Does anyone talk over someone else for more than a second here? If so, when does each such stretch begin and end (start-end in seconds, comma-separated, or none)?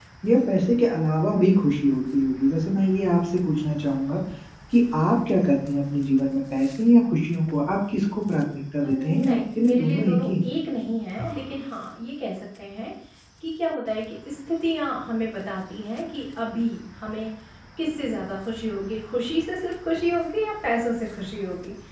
8.8-10.5